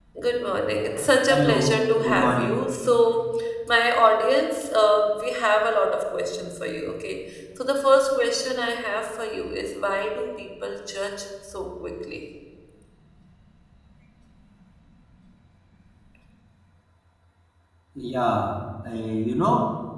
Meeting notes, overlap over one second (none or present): present